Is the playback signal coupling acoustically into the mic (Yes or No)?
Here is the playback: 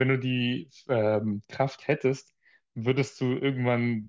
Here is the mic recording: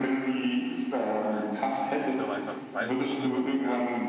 Yes